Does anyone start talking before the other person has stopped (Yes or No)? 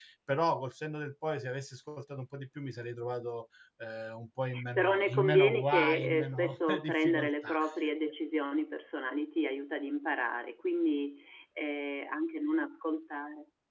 Yes